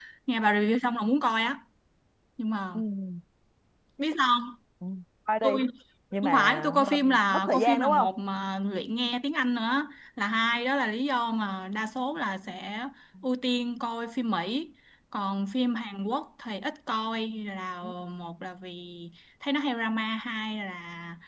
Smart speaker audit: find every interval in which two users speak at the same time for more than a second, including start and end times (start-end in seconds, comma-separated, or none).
6.2-8.1